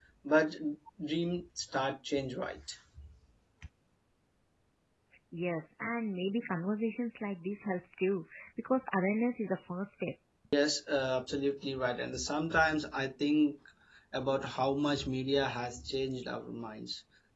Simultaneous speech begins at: none

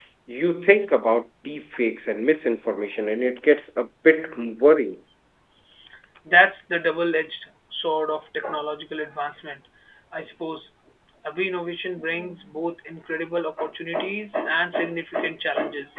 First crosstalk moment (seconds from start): none

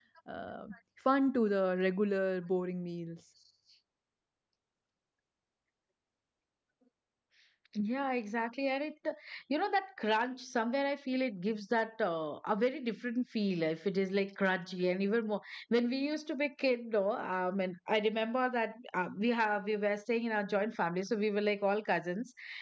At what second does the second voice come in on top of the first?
none

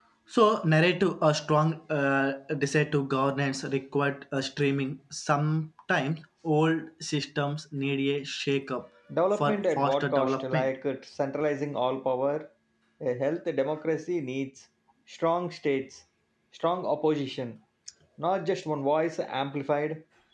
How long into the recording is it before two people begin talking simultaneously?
9.1 s

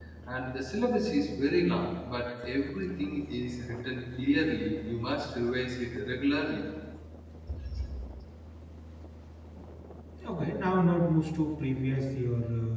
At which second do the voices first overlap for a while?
none

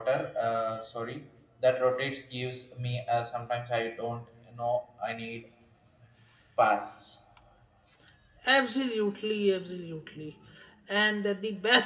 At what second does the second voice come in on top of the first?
none

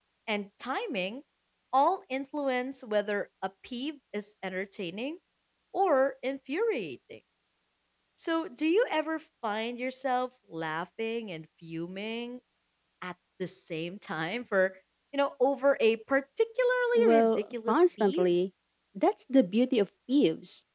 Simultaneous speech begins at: 16.9 s

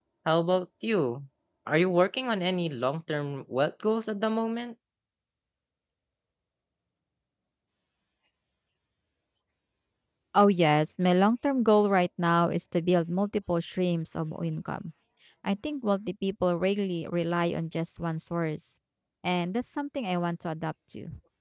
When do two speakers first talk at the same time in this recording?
none

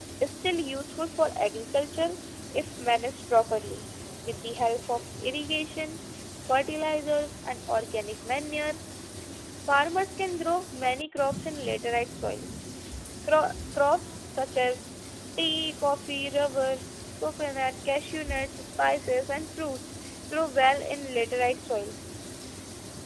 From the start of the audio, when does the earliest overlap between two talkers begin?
none

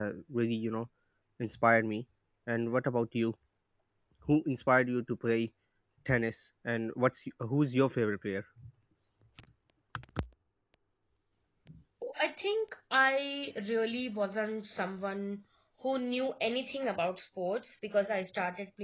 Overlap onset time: none

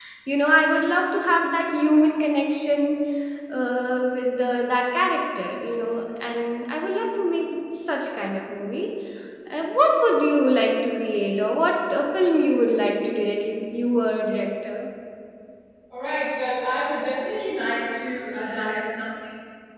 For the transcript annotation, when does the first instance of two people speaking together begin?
none

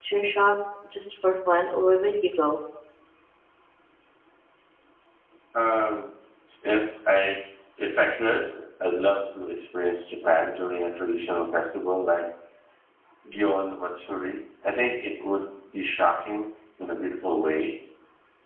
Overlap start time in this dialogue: none

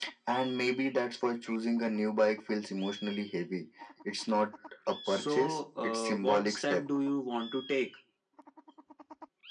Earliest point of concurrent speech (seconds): 5.1 s

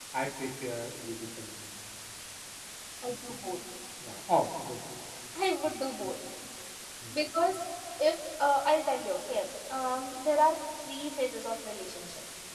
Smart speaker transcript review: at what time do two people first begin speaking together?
none

